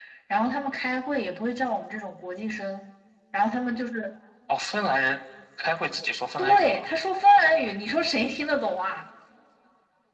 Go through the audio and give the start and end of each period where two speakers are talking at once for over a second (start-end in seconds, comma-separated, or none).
none